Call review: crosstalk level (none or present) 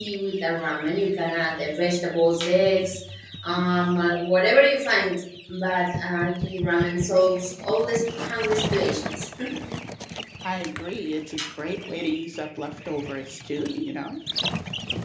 none